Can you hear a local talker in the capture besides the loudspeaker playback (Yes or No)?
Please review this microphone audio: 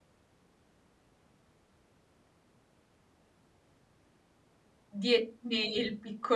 Yes